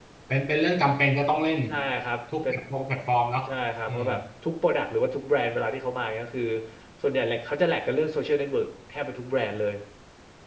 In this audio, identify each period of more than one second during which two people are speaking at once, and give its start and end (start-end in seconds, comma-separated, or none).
none